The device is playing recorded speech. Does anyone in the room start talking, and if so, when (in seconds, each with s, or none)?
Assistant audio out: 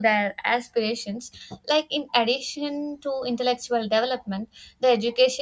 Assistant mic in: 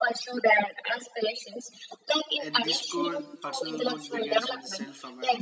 2.4 s